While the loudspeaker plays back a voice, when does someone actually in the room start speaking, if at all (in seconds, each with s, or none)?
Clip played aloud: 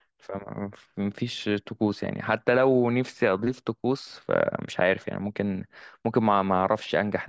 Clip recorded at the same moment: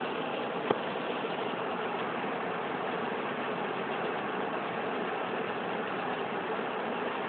none